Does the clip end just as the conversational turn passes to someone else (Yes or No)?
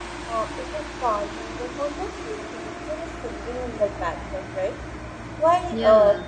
No